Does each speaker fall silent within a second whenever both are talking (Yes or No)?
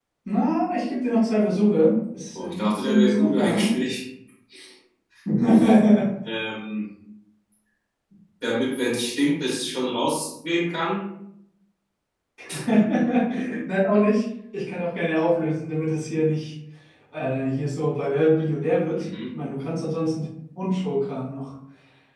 No